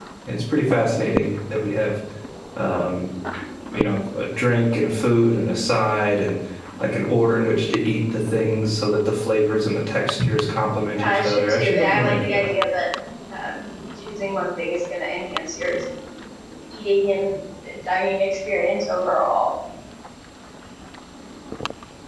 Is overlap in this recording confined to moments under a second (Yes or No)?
No